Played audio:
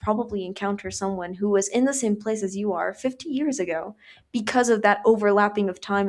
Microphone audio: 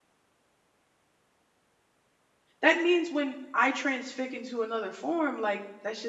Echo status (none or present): none